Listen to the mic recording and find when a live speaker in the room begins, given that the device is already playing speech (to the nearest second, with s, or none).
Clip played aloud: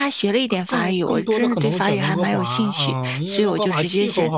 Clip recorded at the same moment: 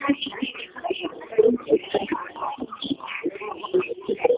none